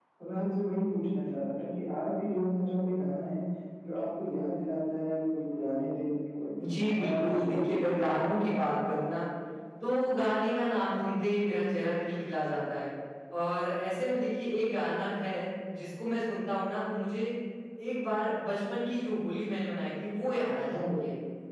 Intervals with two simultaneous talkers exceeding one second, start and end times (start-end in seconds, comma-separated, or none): 6.6-8.4